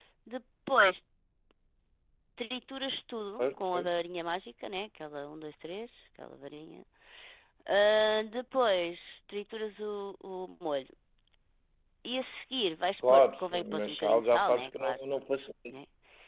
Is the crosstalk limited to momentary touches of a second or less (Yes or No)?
No